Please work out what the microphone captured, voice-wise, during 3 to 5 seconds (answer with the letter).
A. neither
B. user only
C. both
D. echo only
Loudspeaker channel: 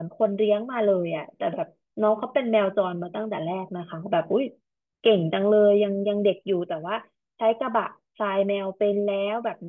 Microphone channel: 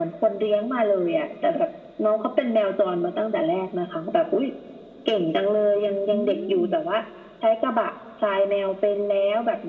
D